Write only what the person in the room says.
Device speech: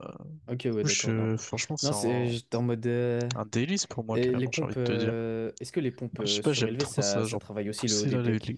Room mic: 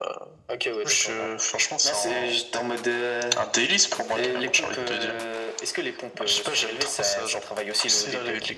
none

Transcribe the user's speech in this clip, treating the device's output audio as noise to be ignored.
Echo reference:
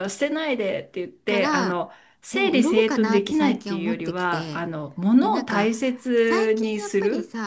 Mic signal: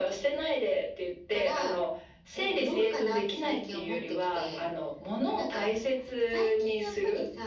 none

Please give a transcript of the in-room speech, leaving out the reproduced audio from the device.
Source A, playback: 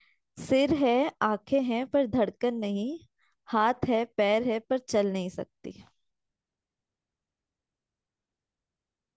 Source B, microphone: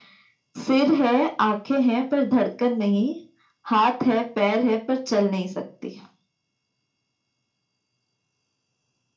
none

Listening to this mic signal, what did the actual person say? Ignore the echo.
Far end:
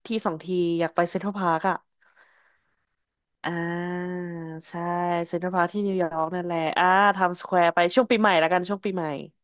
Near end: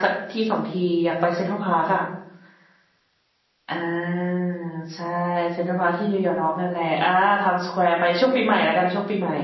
none

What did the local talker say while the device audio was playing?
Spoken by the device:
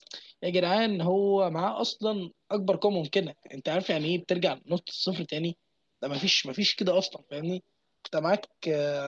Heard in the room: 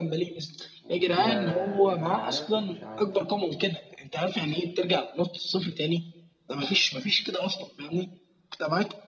وفيها ديفل هيعيط ولا مش هيعيط

